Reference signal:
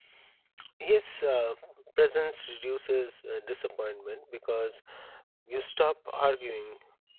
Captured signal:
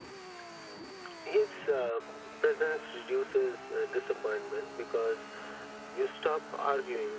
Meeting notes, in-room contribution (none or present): none